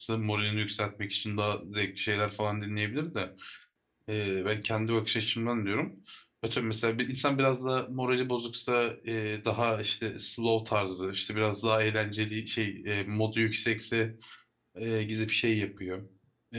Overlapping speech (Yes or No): No